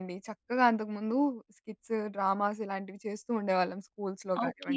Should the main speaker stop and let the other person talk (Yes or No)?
Yes